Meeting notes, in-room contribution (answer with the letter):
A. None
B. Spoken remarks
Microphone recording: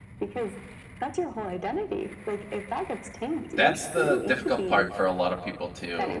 B